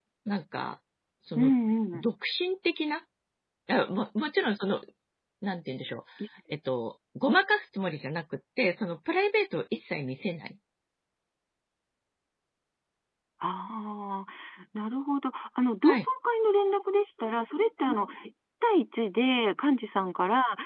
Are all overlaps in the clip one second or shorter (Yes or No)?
Yes